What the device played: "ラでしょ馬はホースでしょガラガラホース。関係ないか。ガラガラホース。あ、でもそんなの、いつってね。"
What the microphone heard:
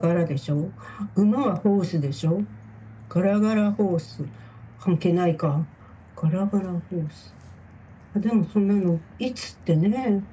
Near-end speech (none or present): none